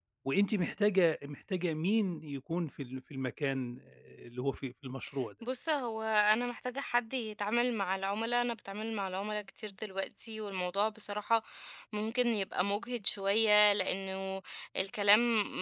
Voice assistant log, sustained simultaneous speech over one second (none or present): none